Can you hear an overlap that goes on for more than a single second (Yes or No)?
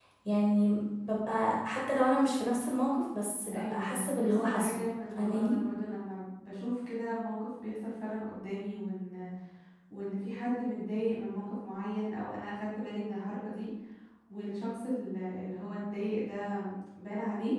Yes